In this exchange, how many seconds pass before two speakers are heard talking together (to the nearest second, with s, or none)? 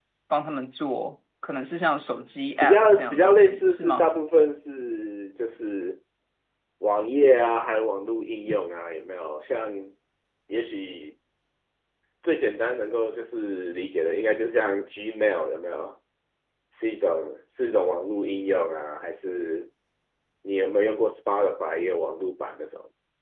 3 s